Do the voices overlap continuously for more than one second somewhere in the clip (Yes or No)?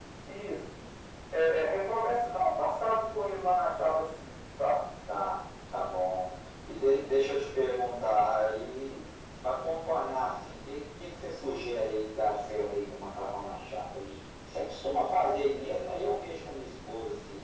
No